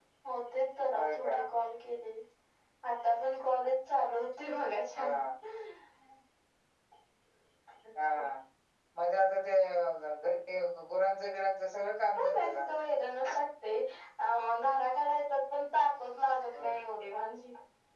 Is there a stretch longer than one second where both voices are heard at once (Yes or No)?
No